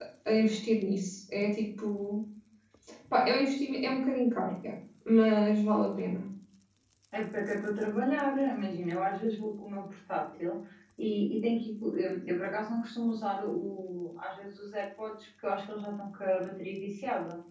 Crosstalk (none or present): none